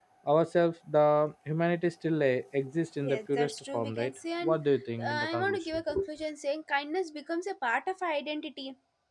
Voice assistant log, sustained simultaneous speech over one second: present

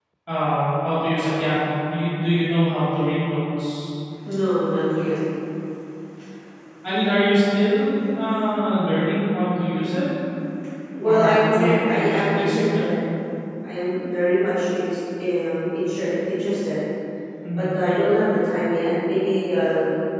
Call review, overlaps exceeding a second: present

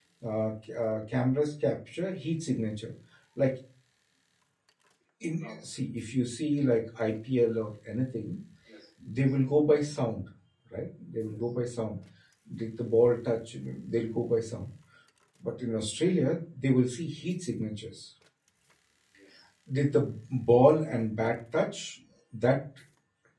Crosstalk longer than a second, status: none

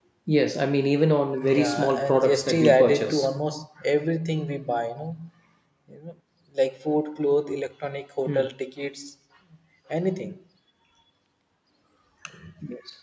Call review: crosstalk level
present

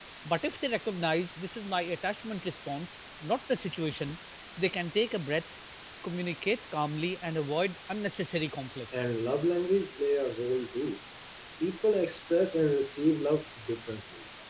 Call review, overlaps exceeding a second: none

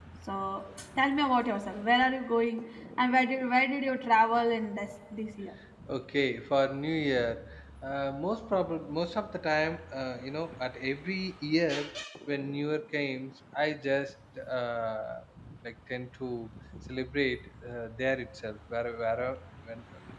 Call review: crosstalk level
none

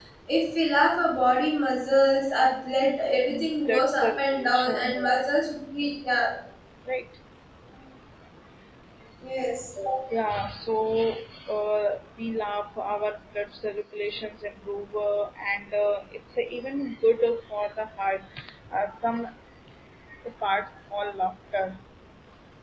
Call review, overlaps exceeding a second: present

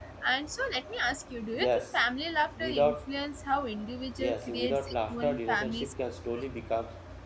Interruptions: present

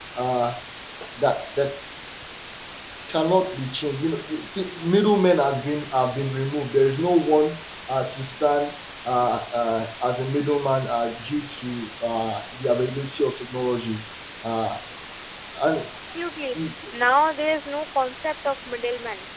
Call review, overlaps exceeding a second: none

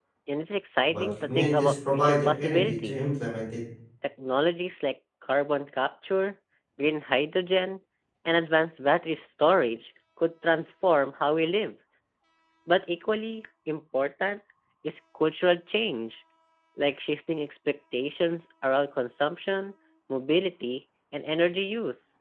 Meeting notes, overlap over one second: present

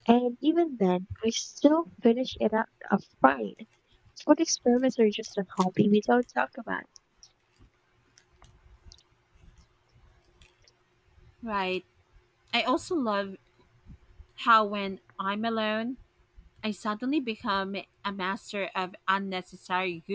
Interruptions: none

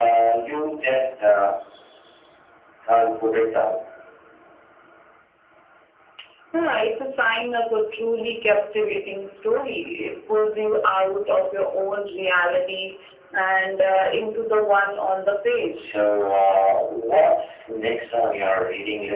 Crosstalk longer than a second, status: none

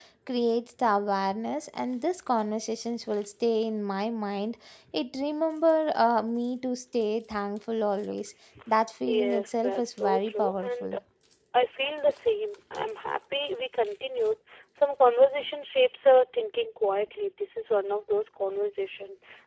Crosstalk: present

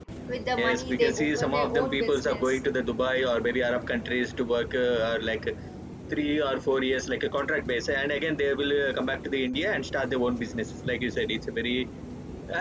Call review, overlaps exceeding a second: present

